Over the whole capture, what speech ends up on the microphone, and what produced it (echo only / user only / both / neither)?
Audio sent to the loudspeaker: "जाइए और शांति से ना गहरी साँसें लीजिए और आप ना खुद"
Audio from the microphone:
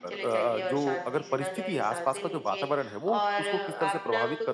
both